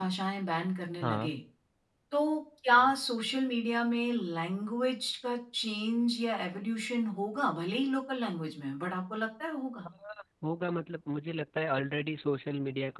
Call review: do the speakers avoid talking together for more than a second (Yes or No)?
Yes